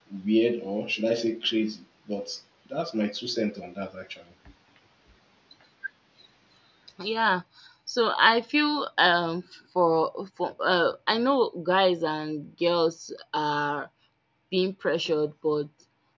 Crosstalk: none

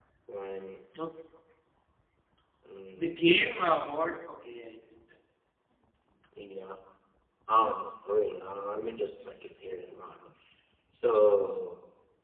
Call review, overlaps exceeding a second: none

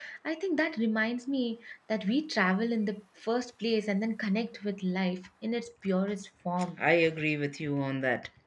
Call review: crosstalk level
none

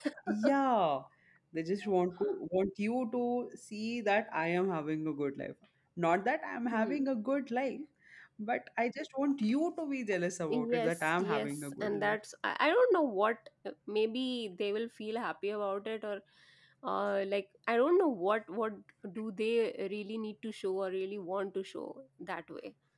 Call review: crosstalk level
present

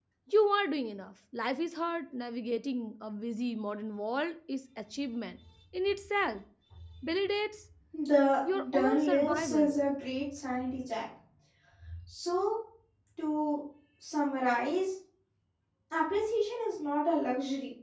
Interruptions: present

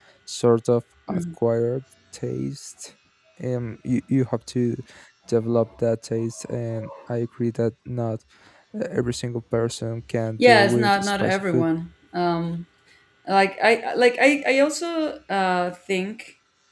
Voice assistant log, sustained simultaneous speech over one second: present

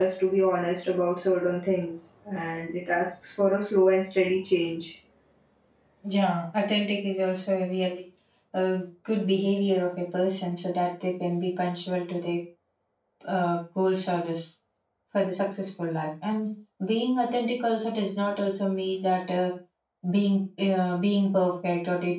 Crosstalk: none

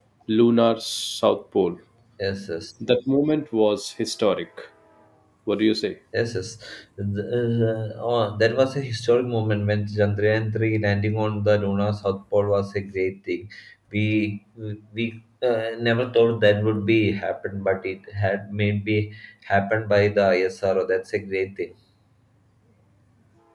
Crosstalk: none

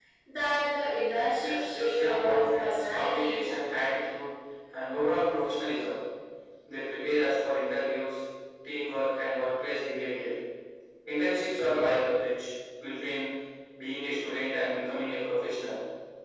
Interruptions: present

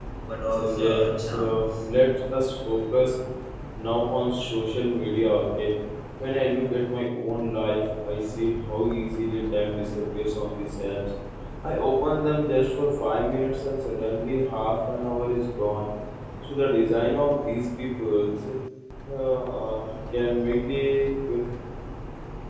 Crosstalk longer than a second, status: present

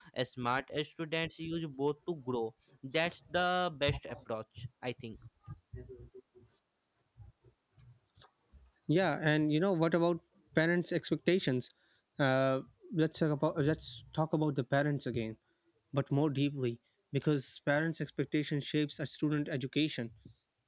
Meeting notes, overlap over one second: none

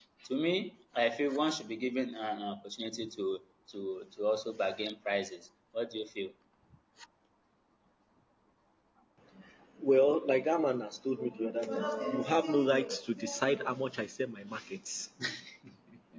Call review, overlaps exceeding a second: none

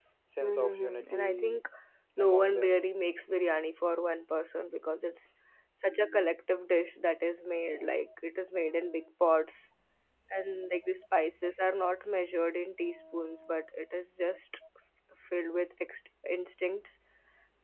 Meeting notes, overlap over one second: present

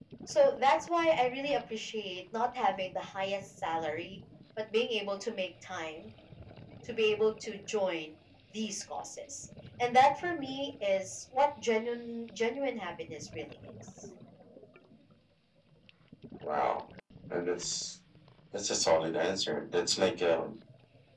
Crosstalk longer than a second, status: none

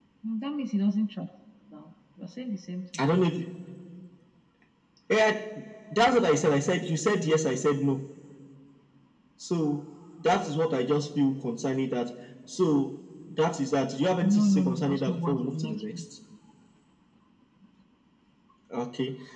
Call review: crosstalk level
present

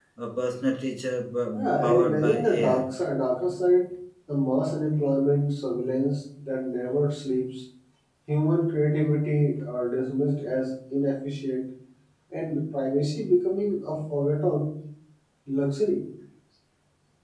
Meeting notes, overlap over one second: present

